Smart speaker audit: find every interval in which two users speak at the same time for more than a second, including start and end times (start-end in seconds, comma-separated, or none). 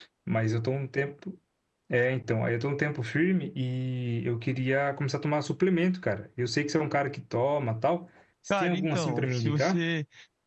8.5-9.8